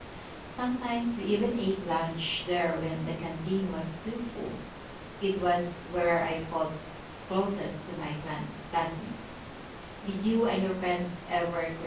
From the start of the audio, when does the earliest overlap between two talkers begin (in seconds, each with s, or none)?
none